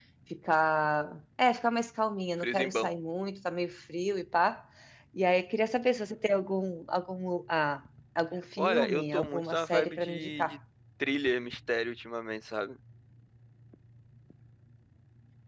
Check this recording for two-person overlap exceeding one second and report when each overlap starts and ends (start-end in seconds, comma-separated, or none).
8.6-10.6